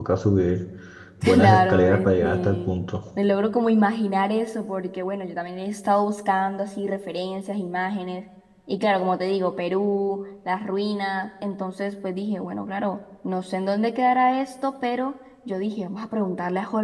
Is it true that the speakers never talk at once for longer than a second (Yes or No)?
No